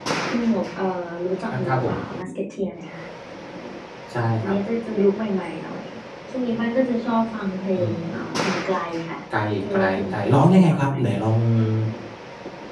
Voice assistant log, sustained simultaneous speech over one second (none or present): present